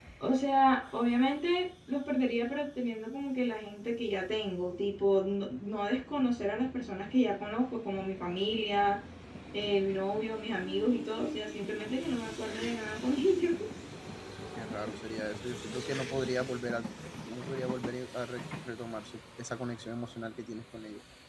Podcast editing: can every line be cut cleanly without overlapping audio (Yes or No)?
Yes